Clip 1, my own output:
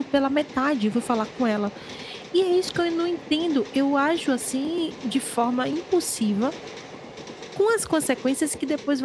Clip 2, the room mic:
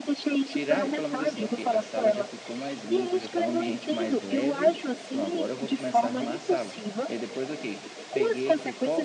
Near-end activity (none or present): present